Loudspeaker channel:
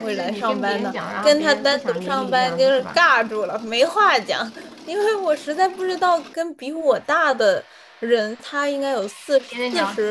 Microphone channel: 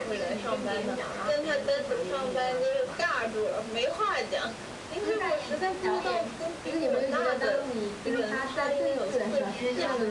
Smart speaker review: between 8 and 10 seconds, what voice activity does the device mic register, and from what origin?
both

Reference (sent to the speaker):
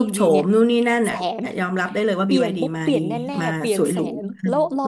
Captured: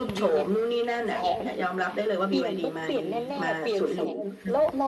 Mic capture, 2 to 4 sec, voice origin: echo only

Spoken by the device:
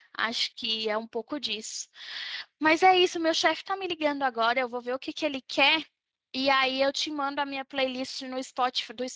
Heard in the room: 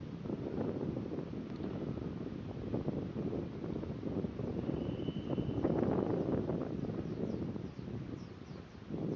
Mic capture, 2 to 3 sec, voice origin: neither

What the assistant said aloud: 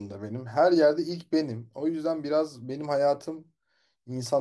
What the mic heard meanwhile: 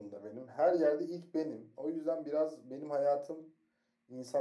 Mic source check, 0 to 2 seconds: echo only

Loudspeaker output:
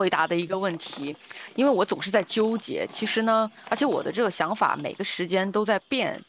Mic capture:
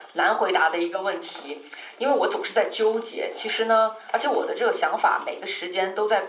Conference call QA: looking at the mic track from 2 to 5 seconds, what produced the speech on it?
echo only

